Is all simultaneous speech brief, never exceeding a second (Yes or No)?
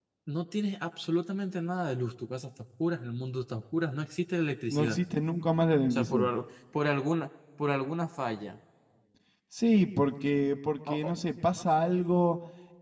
Yes